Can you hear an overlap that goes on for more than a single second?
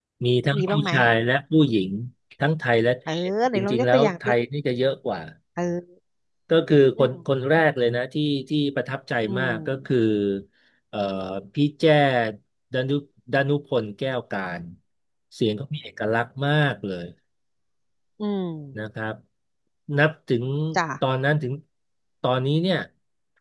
Yes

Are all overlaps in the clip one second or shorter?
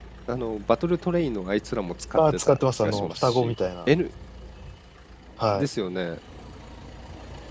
No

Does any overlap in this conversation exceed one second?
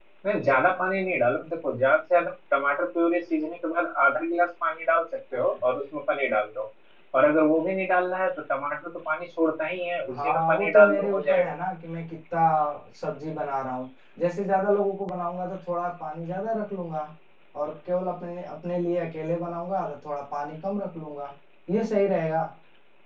Yes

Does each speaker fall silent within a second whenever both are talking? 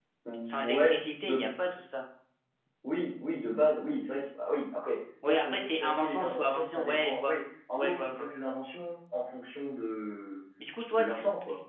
No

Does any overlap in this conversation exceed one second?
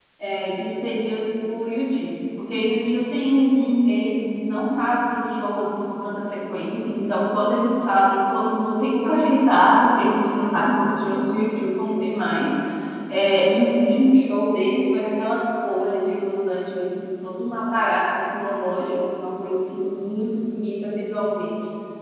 No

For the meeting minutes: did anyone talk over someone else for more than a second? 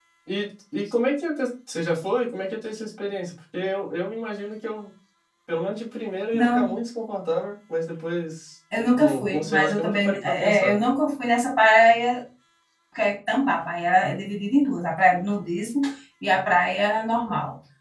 Yes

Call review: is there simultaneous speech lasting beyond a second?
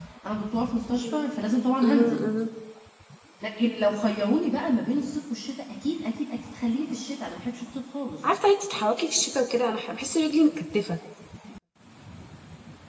No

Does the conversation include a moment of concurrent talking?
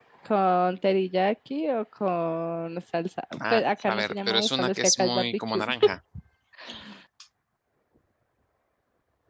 Yes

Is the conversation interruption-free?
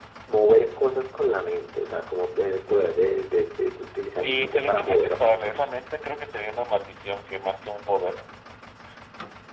No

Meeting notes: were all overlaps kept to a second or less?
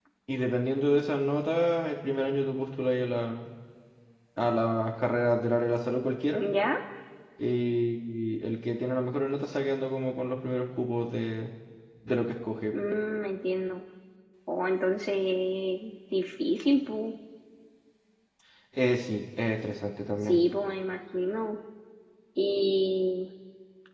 Yes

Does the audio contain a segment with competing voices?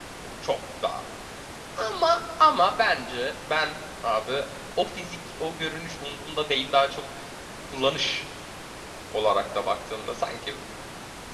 No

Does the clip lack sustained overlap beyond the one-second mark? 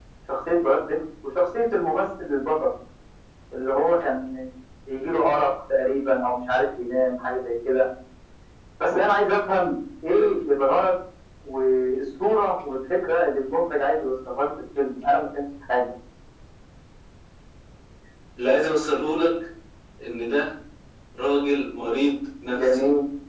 Yes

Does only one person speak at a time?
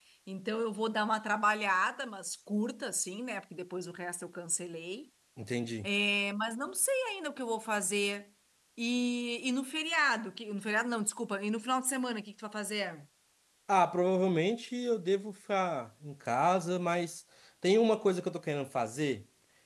Yes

